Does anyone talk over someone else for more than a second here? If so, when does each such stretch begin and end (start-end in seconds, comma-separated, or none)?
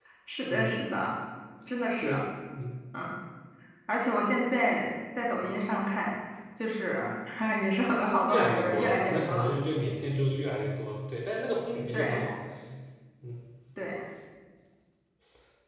8.3-9.5